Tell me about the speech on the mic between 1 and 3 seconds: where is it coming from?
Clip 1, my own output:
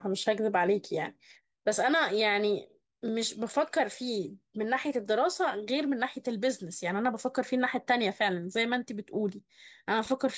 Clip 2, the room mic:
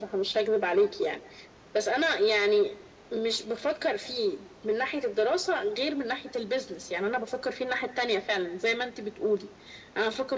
echo only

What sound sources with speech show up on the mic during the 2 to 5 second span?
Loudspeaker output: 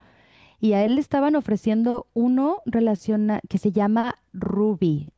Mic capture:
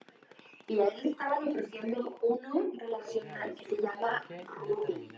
both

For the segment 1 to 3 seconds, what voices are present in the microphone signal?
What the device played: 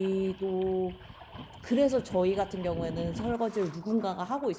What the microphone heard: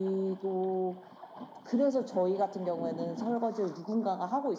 echo only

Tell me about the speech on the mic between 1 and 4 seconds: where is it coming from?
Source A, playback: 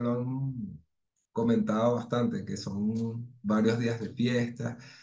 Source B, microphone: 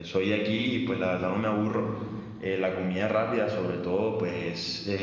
user only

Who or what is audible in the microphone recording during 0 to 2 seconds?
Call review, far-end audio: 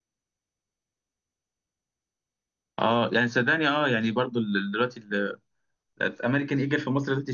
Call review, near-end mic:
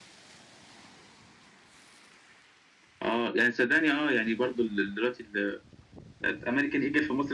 neither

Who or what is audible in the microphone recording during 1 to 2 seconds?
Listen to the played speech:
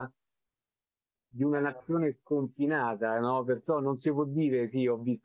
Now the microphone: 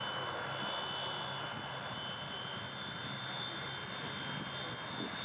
neither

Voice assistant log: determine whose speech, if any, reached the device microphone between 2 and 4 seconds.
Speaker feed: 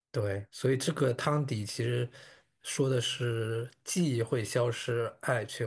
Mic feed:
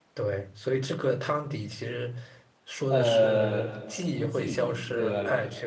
both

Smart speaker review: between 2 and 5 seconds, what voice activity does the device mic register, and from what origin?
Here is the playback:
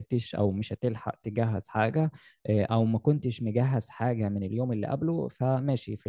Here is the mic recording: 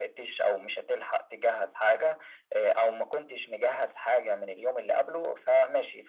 echo only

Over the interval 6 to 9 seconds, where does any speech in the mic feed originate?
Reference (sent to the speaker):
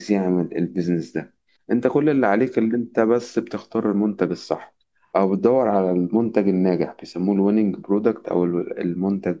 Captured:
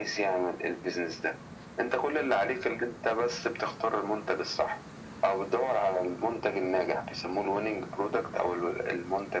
echo only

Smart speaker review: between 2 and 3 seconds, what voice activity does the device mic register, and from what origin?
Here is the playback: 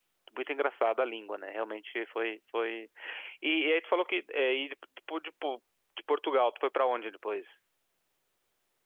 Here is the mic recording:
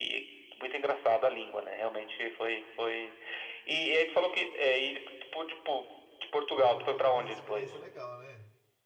echo only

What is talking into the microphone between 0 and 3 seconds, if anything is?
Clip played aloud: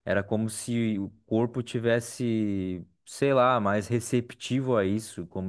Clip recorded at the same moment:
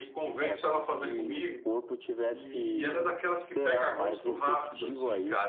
both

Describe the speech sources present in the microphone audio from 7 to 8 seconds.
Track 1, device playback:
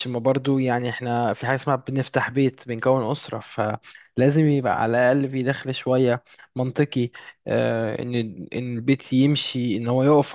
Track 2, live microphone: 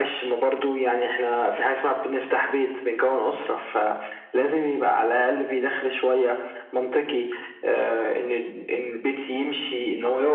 echo only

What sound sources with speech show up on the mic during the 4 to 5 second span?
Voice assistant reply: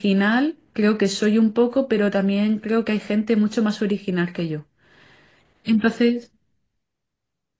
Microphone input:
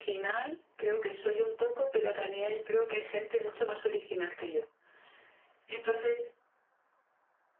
echo only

